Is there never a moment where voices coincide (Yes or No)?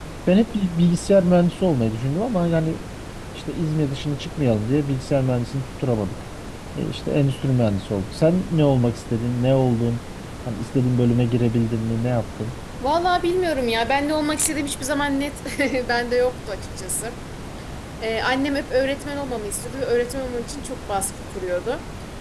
Yes